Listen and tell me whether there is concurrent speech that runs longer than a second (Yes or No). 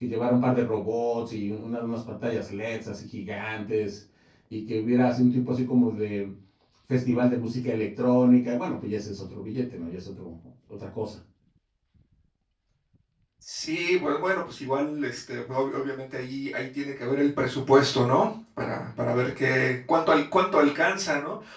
No